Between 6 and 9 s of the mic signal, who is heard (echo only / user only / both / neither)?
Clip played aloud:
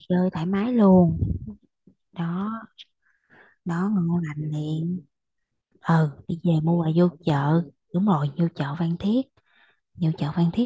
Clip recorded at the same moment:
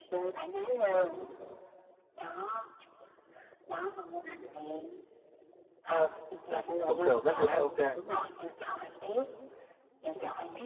both